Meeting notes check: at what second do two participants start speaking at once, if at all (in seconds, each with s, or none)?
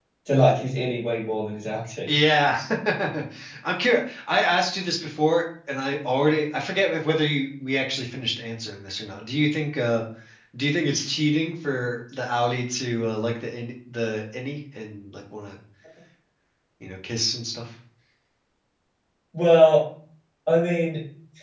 none